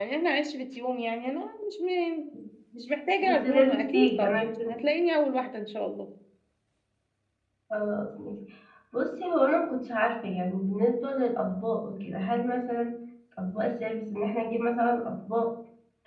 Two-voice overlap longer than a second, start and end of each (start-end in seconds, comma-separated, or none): 3.2-4.8